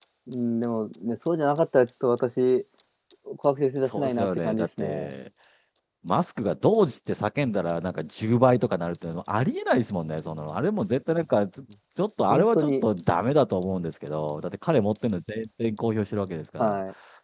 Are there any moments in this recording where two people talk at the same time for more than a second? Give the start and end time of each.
3.9-5.1

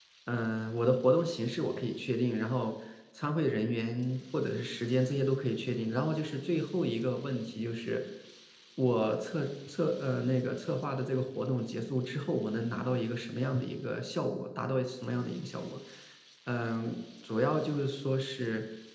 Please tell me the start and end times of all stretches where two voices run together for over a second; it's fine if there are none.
none

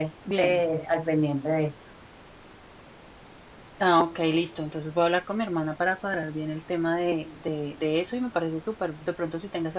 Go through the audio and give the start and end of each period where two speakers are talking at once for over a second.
none

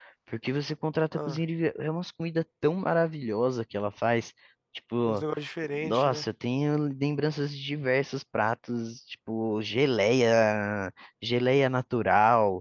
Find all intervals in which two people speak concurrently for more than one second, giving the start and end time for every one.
none

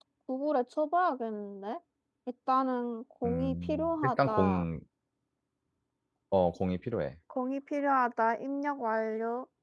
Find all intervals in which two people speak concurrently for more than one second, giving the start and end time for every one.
3.2-4.6

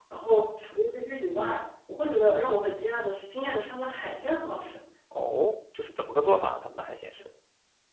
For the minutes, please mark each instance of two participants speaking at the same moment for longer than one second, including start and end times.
none

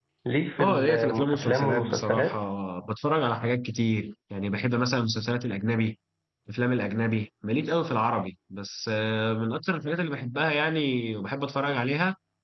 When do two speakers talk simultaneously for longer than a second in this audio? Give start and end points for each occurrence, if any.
0.6-2.4

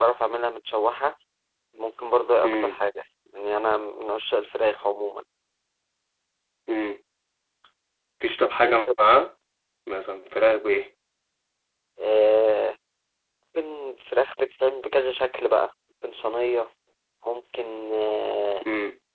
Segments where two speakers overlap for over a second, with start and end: none

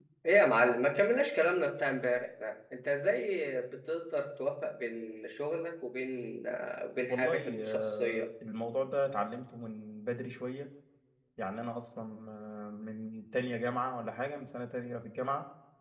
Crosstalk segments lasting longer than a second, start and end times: 7.1-8.3

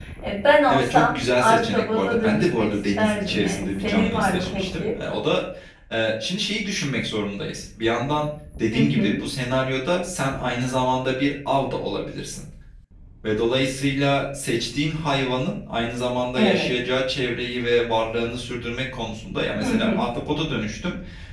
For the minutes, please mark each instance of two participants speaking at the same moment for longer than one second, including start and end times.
0.7-4.8

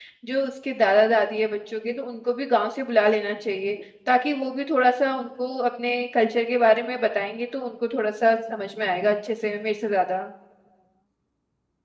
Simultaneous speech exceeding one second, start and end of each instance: none

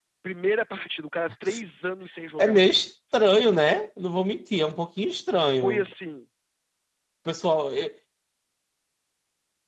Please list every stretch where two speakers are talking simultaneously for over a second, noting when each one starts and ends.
none

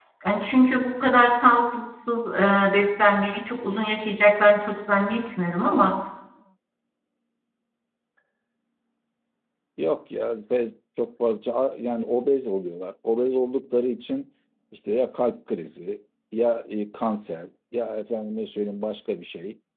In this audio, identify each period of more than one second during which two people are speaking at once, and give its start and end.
none

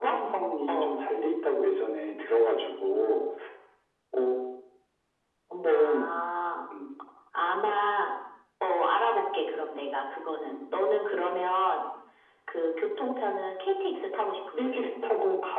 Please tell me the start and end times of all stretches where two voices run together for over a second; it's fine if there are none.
none

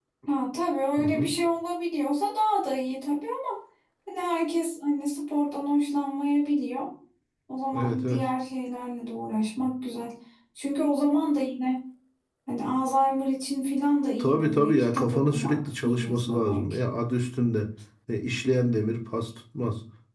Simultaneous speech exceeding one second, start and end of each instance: 14.2-16.8

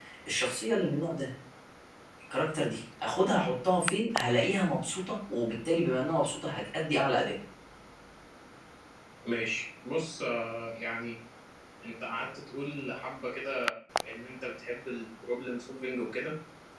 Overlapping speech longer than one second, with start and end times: none

